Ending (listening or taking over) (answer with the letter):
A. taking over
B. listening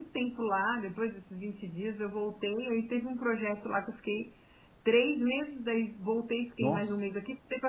B